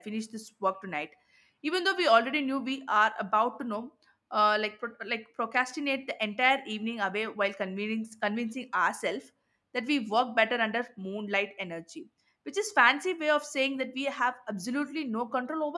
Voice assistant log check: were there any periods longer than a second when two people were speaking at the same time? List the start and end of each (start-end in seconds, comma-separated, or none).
none